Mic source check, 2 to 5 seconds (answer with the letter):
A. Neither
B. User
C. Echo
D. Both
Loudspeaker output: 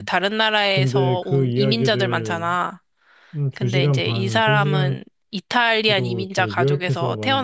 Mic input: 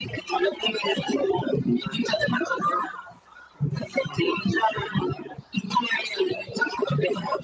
C